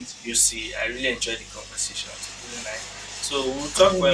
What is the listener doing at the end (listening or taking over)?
listening